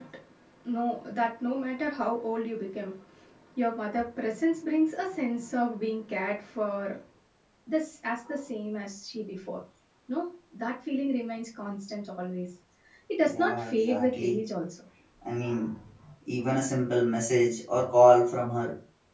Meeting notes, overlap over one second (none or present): present